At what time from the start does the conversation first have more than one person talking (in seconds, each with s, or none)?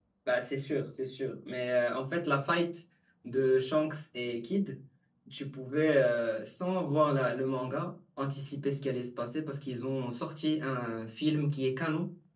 none